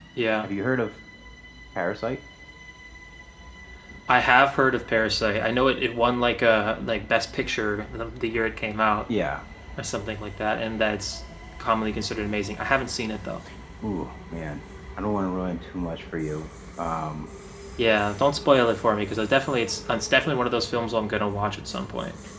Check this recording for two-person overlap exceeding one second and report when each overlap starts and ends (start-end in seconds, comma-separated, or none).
none